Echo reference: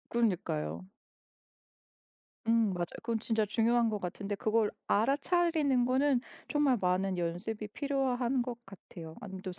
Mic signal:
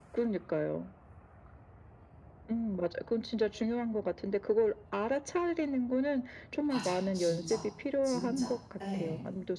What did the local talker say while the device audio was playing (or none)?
맞아. 진짜. 진짜. 예.